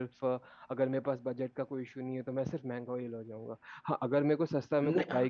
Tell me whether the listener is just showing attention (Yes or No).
Yes